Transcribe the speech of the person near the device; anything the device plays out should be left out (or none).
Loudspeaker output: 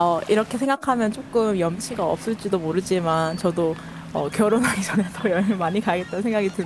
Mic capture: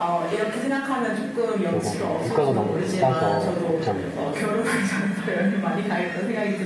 그쪽은 근데 물가가 너무 비싸서 걱정이에요.